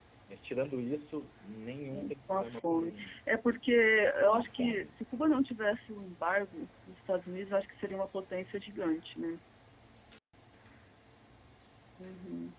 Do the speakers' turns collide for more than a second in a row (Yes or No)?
Yes